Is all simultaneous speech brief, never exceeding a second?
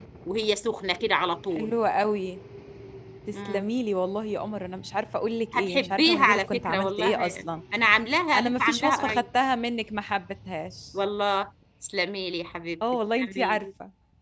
No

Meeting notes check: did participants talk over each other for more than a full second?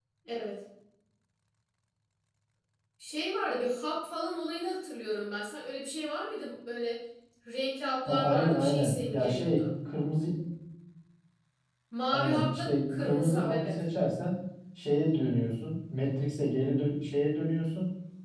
Yes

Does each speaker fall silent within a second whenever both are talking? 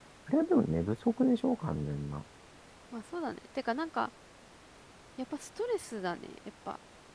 Yes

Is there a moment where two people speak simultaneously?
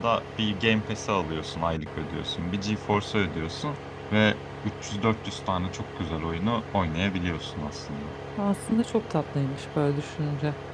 No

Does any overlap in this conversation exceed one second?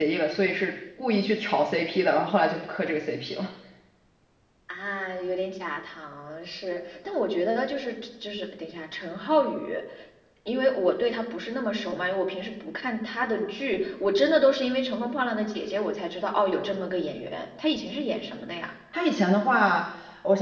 No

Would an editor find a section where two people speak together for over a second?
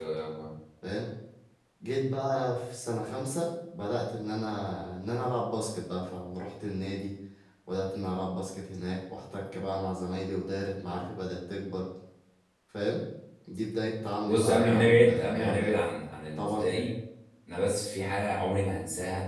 Yes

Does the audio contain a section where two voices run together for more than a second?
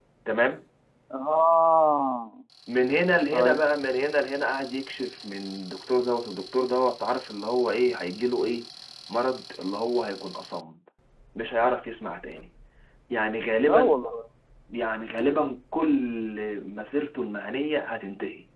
No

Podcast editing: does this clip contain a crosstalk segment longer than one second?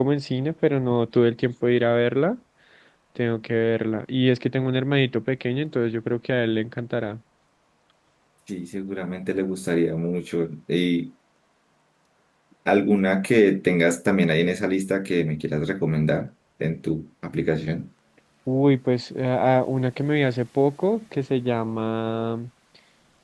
No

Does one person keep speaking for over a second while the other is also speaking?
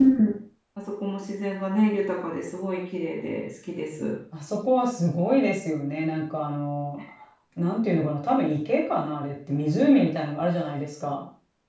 No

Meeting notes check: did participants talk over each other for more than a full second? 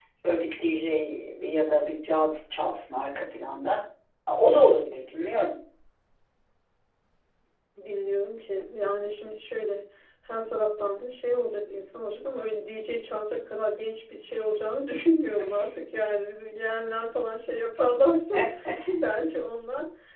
No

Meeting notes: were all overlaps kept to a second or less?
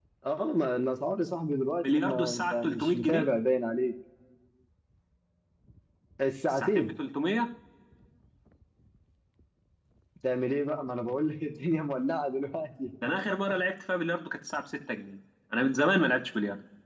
No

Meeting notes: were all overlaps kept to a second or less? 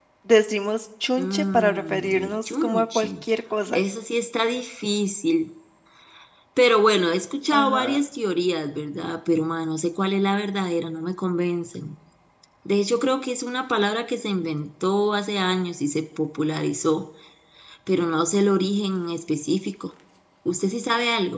No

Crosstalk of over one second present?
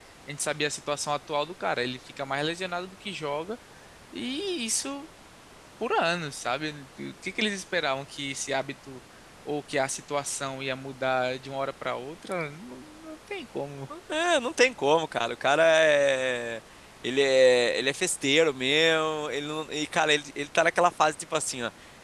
No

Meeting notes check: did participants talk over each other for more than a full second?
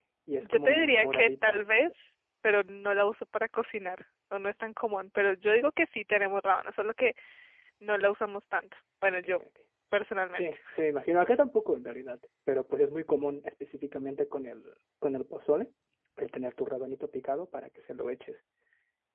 Yes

